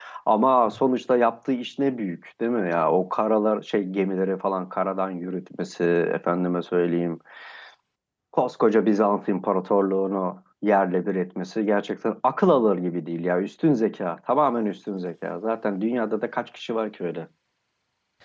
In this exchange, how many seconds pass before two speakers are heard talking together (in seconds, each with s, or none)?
none